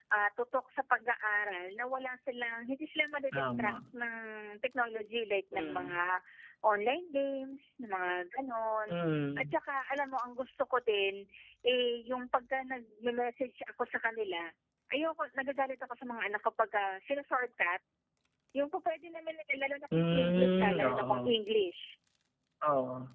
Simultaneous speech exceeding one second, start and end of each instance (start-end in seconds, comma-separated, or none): 19.9-21.4